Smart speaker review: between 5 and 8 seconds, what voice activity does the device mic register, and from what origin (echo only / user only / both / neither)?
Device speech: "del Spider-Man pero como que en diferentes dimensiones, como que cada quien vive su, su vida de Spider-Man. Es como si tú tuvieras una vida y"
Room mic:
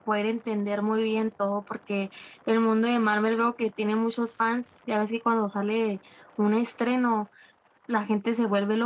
user only